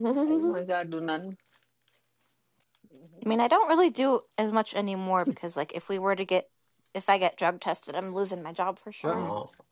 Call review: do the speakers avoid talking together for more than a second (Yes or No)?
Yes